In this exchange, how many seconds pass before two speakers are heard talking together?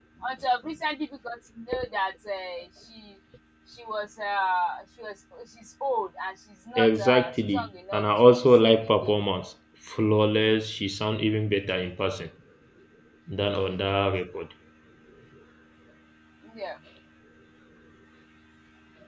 7 s

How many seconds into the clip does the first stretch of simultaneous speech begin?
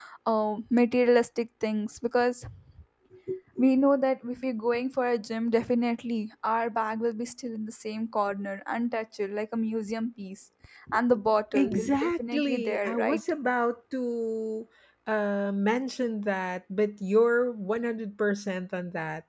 12 s

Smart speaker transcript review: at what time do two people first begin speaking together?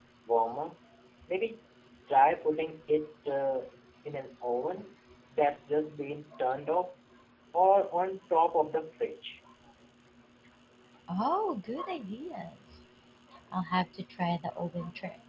none

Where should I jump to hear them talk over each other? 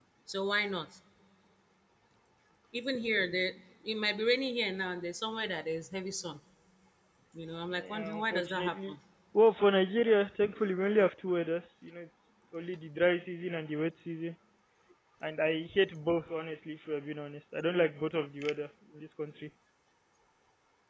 8 s

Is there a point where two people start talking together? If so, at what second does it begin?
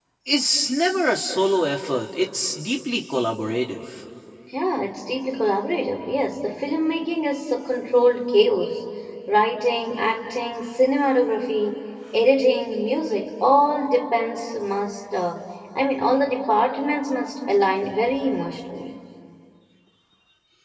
none

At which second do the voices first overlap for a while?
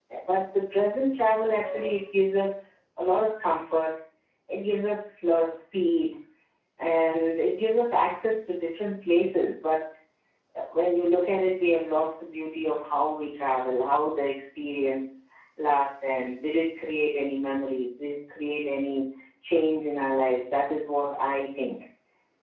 none

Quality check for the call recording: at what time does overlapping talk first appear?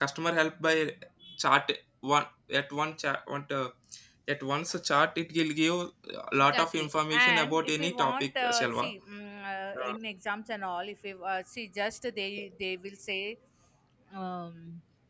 6 s

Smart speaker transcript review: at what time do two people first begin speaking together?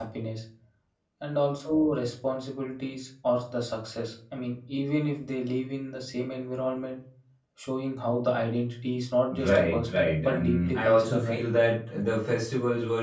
9 s

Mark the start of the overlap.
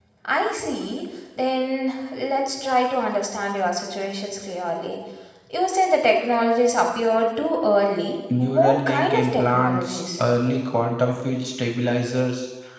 8 s

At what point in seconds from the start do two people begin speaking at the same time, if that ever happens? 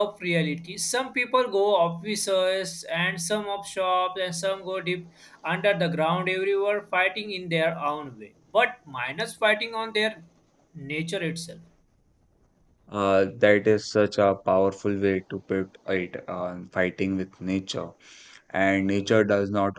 none

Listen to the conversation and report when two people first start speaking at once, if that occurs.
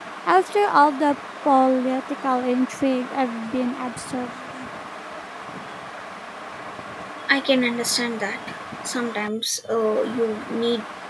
none

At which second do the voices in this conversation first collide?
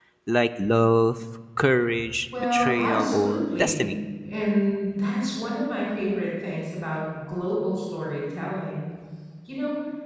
2 s

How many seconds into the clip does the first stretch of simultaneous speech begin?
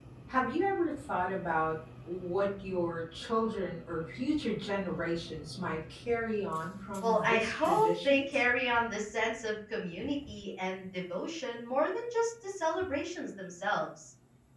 7 s

